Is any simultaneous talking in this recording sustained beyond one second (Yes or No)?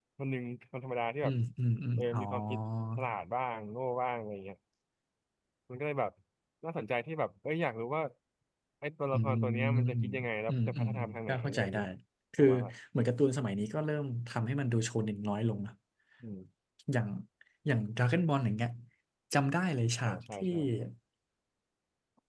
Yes